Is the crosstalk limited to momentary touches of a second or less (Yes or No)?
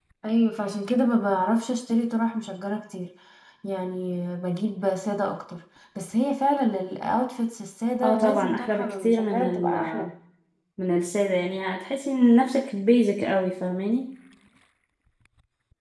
No